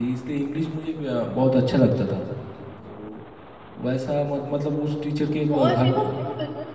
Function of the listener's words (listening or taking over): taking over